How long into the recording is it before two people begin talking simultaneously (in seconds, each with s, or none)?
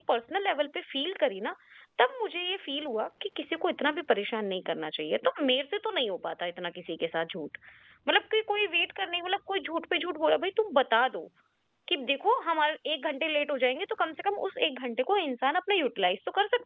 none